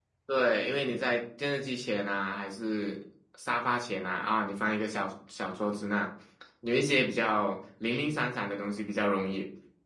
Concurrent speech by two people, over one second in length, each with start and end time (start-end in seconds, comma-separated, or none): none